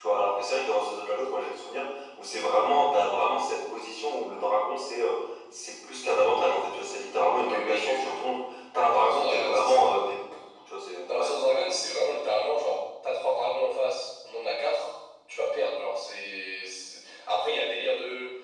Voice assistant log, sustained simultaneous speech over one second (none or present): present